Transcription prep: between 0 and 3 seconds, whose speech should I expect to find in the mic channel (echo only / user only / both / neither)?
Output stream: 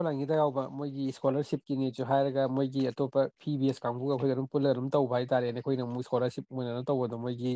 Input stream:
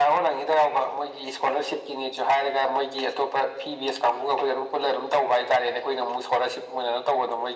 echo only